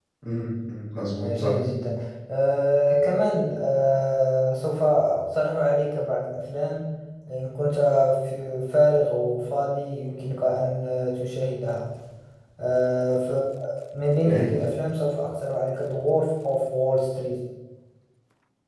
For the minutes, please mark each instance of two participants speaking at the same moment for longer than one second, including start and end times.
none

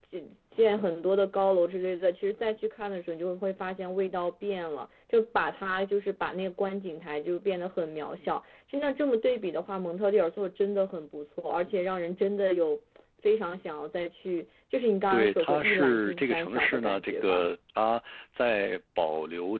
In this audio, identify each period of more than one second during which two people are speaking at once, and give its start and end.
15.1-17.4

